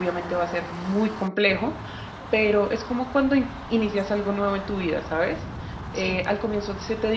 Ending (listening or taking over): listening